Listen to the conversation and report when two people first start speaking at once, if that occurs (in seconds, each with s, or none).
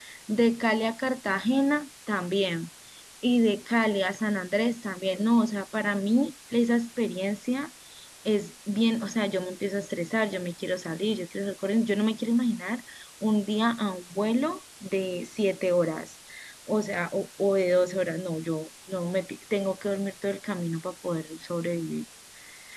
none